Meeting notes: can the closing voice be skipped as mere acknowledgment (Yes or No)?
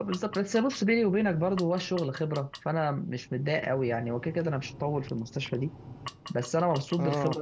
Yes